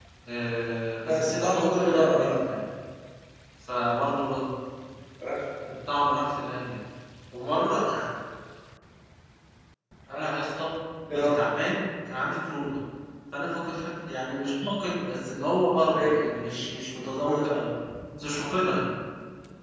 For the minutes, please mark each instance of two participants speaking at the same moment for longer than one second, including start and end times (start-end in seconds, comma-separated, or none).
1.0-2.4